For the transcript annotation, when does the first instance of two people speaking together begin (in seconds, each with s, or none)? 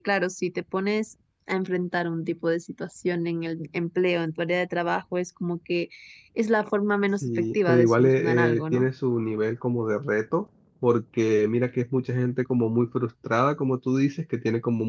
7.2 s